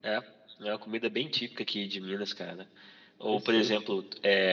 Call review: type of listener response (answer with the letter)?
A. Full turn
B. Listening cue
B